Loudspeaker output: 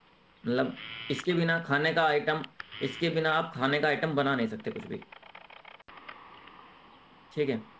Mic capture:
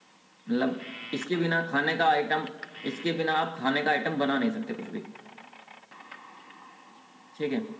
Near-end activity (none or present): none